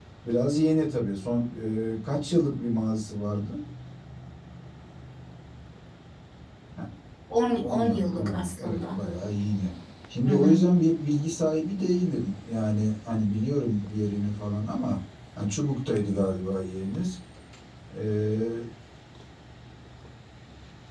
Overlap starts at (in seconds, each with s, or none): 7.6 s